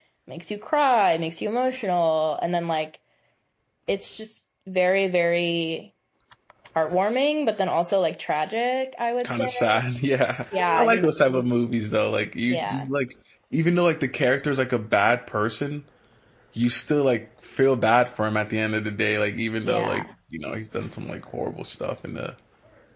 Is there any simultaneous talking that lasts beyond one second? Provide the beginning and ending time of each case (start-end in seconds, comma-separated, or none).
none